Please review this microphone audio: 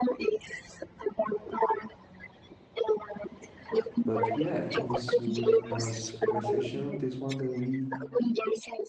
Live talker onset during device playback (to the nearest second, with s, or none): 4 s